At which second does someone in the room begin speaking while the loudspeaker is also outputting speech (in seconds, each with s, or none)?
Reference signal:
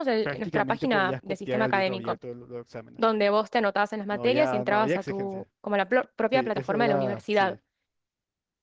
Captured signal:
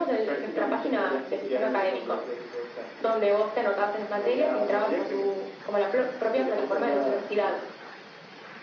none